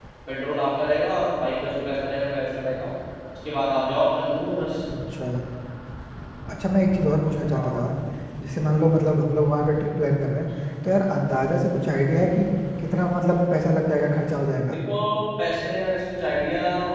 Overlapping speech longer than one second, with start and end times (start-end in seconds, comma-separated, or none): none